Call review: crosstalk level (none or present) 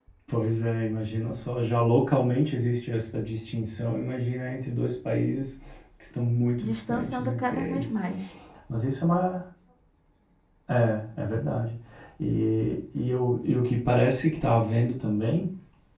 present